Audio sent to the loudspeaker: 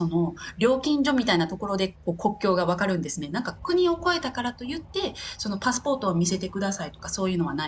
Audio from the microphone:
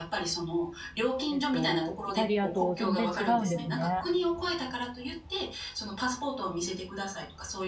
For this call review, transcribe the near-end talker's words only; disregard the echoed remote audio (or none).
えっと、イタリアと全然違うんですね。